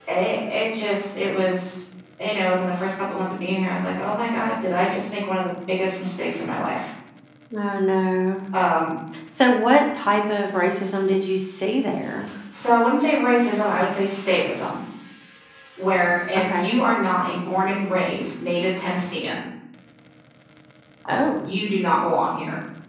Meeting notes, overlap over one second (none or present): none